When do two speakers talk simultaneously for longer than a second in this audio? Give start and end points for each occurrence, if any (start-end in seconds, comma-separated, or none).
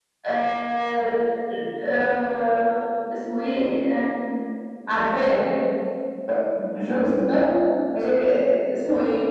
none